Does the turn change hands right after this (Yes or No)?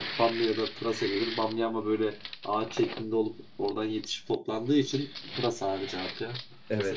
Yes